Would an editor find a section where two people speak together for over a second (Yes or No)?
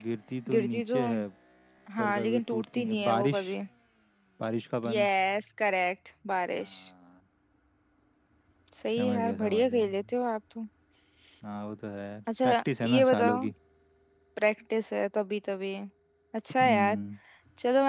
Yes